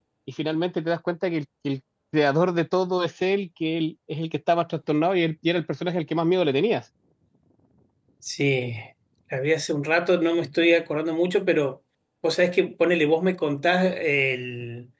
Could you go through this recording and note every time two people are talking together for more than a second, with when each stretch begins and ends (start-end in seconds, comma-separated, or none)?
none